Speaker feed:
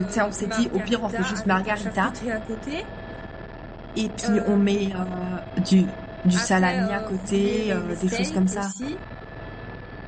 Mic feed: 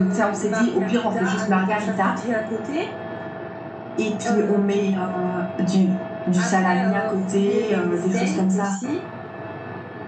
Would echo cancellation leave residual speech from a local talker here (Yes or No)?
No